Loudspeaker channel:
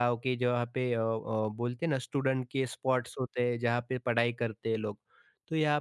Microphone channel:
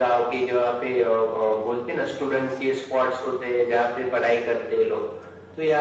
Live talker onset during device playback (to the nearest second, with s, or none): none